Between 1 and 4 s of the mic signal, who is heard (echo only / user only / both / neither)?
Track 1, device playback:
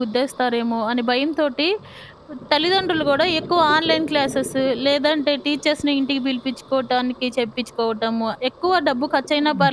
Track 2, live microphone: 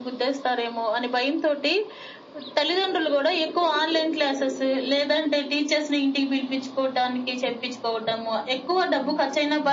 echo only